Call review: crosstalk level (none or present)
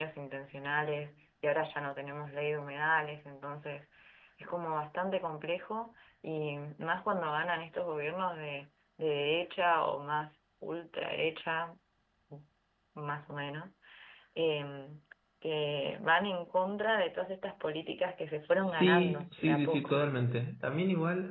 present